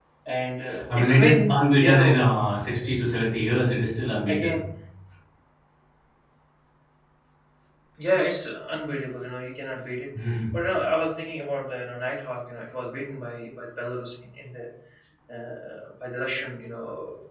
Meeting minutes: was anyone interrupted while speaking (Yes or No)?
Yes